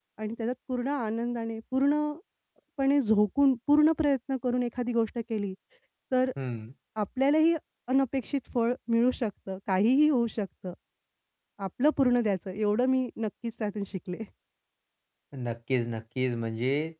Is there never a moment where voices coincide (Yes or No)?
Yes